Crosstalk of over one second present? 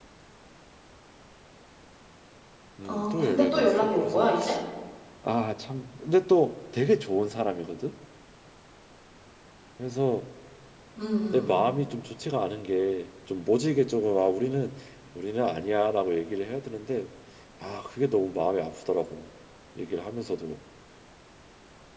Yes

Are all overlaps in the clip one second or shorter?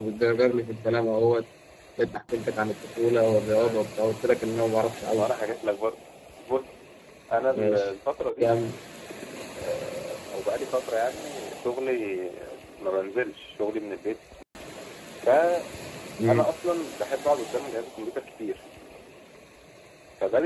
Yes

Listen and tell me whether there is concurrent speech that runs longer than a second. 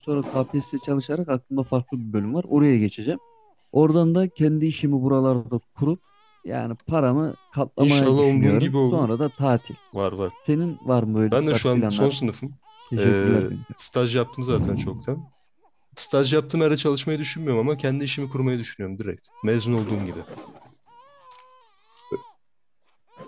Yes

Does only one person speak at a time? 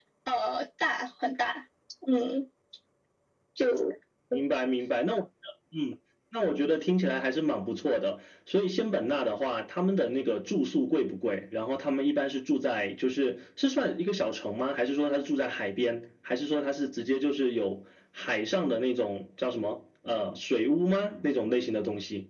Yes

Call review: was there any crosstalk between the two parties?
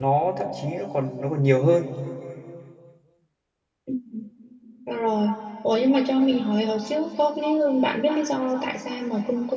No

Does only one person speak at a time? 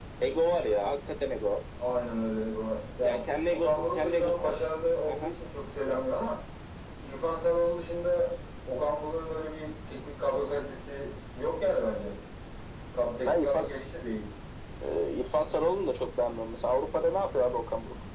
No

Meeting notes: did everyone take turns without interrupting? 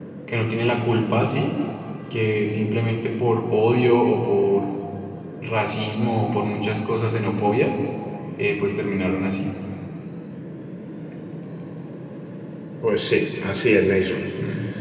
Yes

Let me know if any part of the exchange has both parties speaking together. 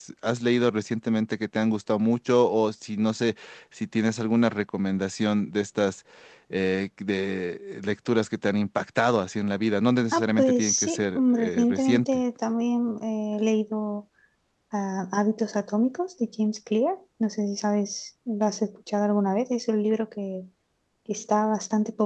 Yes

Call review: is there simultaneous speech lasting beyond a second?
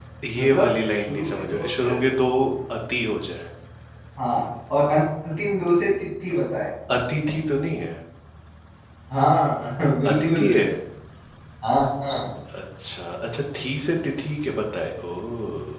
Yes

